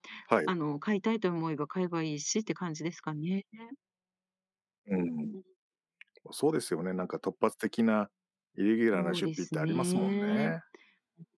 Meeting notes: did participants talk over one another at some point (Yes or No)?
Yes